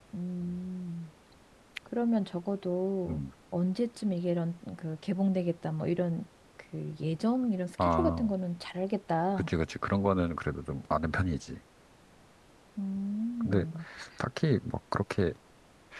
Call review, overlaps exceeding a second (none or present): none